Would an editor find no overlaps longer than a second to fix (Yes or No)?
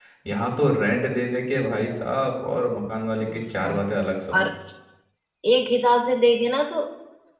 Yes